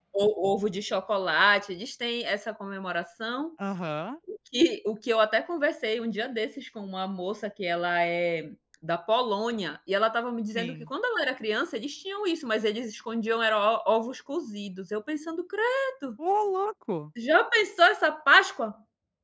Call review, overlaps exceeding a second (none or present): none